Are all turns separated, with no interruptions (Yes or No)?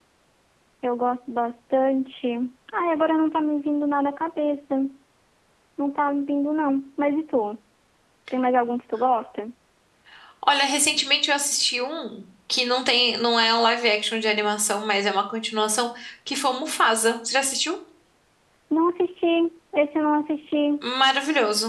Yes